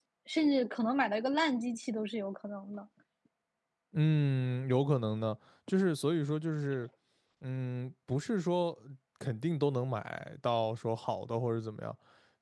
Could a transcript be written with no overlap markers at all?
Yes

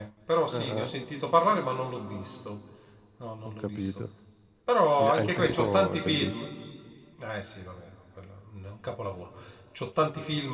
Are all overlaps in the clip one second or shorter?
No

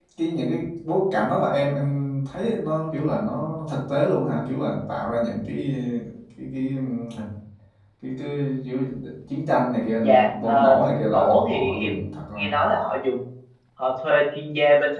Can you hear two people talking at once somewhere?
Yes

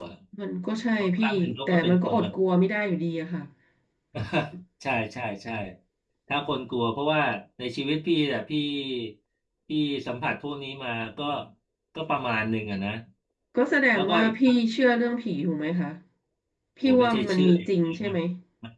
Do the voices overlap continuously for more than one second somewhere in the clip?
Yes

